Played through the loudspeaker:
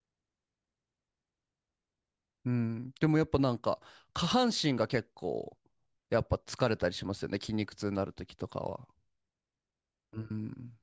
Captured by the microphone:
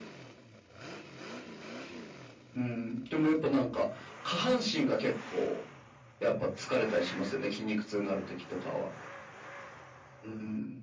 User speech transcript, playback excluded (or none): none